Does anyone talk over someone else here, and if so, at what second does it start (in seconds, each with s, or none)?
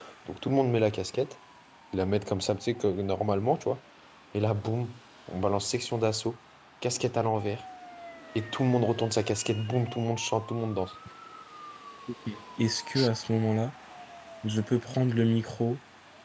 none